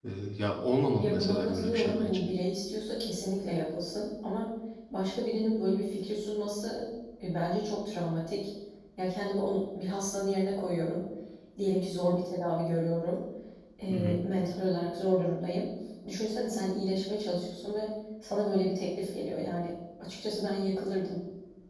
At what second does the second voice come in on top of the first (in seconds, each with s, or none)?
1.0 s